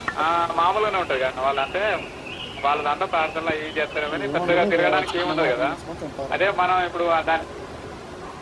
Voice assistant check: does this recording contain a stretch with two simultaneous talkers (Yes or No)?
Yes